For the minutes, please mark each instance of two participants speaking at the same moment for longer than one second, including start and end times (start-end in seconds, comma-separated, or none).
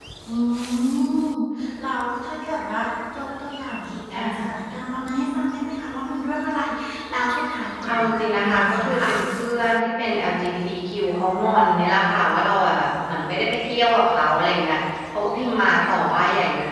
7.9-9.1